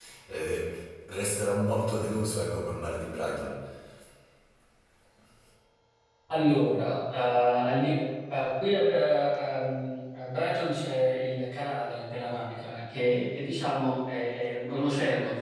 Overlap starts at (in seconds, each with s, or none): none